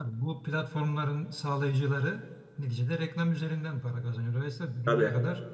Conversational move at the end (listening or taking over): listening